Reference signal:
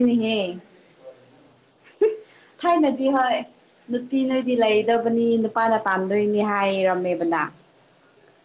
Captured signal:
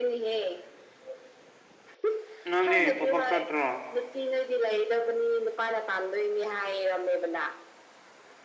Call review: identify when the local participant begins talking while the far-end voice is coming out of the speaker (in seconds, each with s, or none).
2.5 s